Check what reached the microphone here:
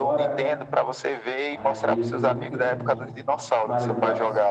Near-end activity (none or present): present